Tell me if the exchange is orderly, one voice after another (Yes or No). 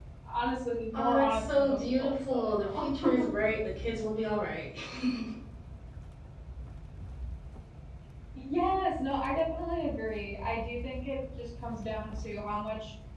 No